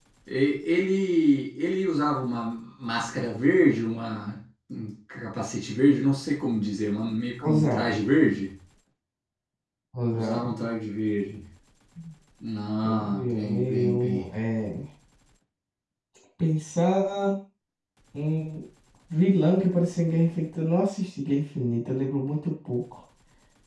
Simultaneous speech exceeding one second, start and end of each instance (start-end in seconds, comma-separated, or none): 12.8-14.2